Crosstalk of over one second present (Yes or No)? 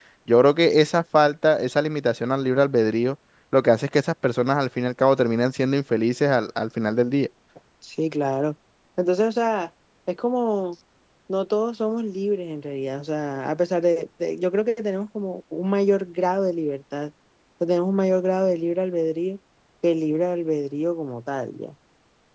No